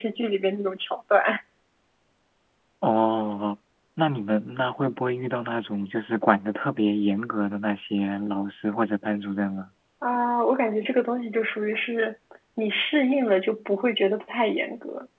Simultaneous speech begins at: none

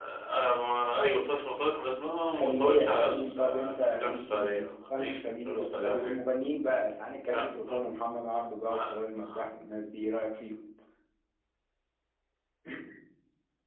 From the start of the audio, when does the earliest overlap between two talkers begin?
2 s

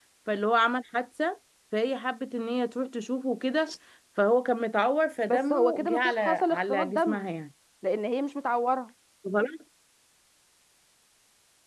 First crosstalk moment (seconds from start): 5 s

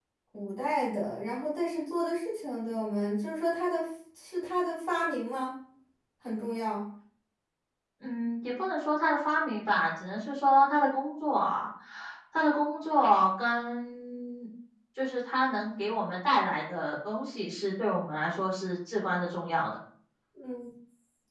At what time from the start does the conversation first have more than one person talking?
none

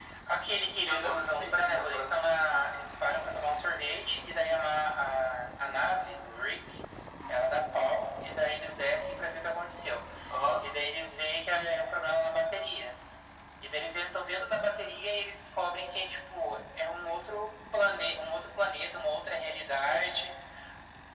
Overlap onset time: 1 s

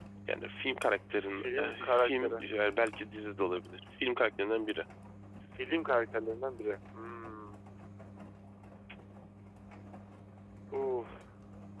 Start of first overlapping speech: 1 s

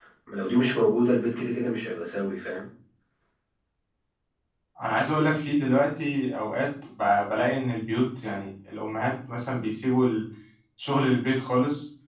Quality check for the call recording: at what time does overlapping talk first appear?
none

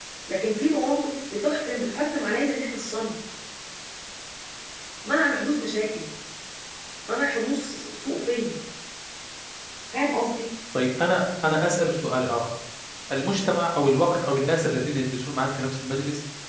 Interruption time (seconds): none

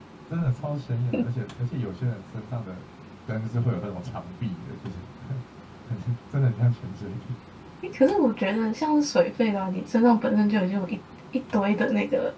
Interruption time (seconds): none

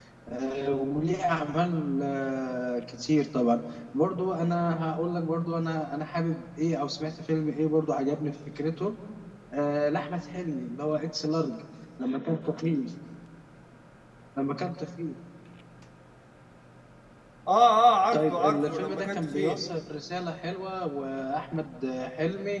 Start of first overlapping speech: 18 s

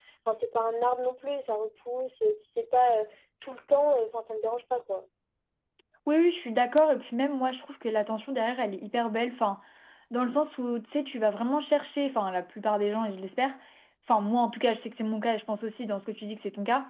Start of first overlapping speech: none

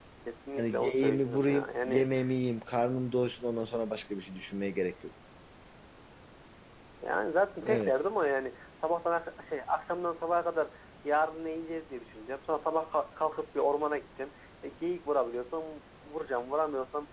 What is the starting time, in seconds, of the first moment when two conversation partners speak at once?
1 s

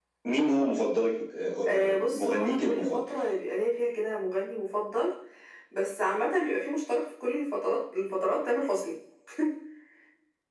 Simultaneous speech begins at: 2 s

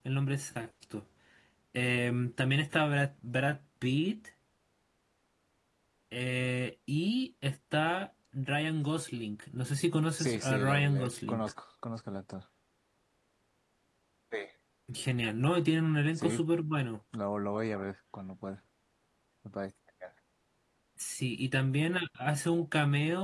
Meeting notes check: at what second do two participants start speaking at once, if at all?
10 s

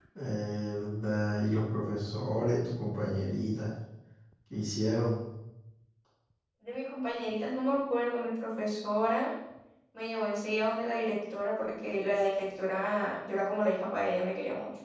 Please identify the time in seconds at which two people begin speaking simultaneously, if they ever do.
none

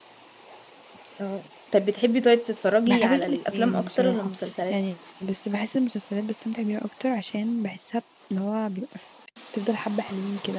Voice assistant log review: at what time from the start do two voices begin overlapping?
3 s

